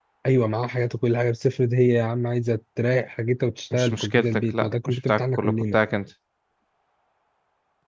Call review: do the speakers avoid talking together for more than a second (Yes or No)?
No